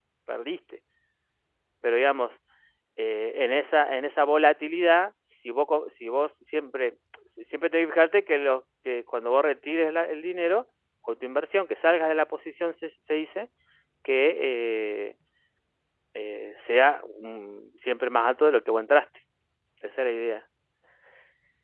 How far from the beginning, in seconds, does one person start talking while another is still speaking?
none

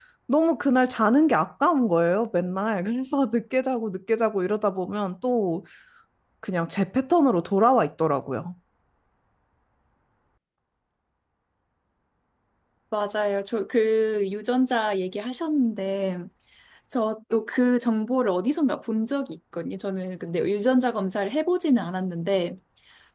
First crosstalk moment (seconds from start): none

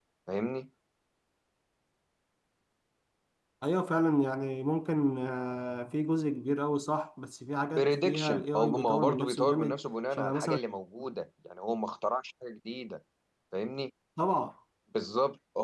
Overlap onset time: 7.8 s

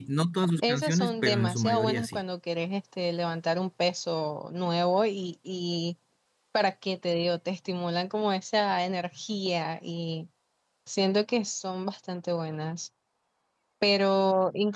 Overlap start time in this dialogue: 0.7 s

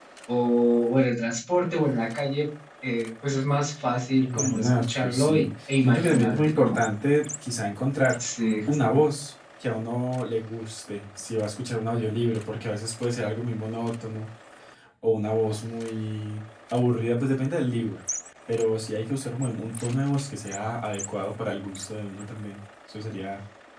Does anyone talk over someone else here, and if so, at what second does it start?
4.2 s

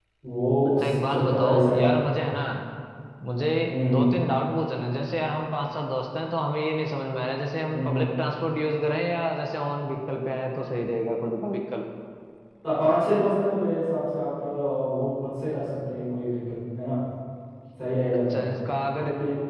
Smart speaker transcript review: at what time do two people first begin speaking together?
0.7 s

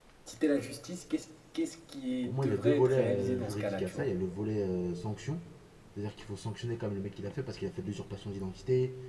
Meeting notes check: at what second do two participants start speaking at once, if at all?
2.3 s

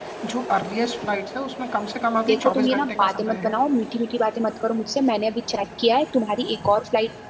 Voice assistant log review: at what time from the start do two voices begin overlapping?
2.3 s

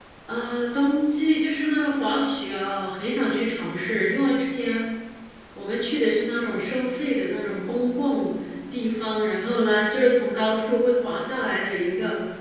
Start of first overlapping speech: none

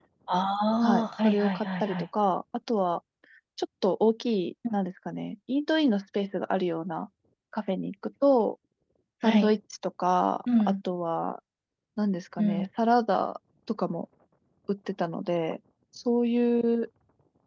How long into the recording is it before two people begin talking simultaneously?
0.8 s

